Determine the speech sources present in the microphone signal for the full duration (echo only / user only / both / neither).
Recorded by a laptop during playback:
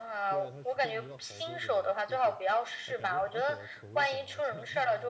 both